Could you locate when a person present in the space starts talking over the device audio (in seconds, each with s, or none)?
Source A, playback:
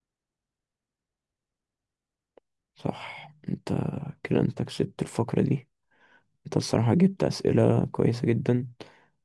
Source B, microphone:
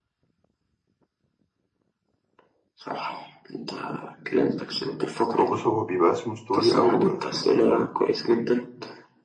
5.4 s